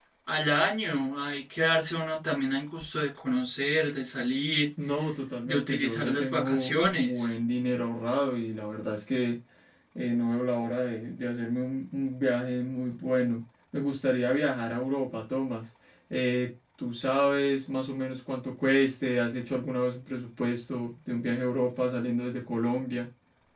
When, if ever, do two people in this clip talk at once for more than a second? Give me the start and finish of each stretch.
5.4-7.3

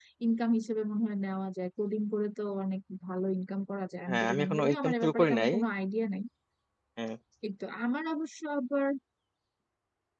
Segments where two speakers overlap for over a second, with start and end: 4.1-5.5

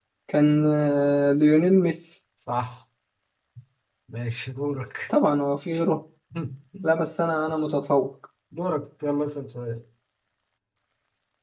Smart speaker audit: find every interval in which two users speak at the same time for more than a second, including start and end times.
none

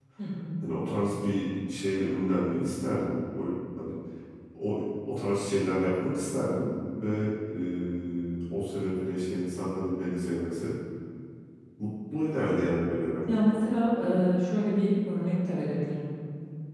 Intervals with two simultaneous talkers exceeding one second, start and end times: none

